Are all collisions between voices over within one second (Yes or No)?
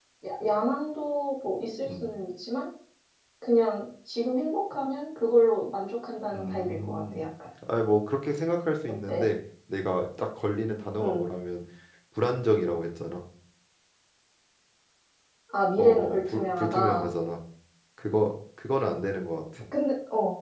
No